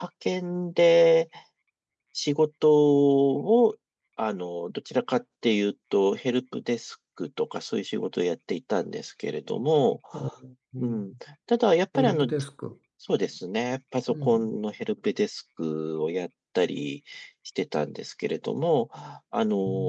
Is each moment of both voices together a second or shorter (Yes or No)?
Yes